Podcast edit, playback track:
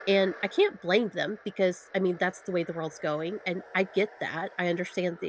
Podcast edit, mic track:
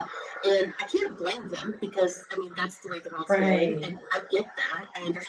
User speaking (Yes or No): Yes